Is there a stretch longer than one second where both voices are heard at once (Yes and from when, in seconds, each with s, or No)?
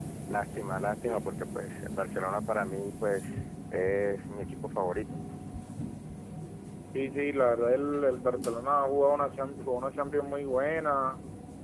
No